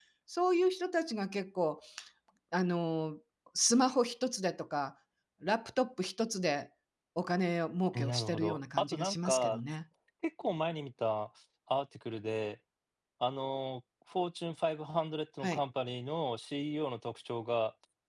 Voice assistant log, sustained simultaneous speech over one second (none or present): present